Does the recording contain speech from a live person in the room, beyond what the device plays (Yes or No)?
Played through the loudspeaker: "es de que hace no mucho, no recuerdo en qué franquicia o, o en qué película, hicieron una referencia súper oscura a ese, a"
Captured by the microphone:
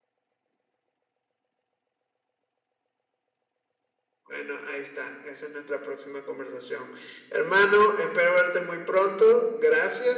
Yes